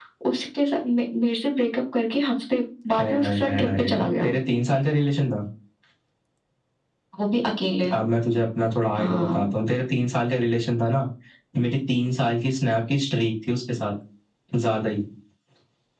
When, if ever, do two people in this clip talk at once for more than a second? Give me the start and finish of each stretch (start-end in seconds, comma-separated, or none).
3.0-4.3